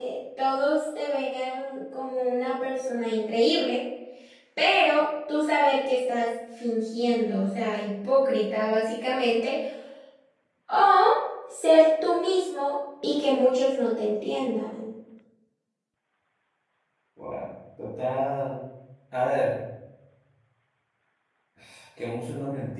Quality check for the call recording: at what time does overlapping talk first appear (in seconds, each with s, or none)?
none